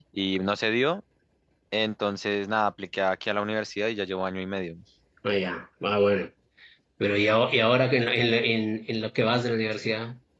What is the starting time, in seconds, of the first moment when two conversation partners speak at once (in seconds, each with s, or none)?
none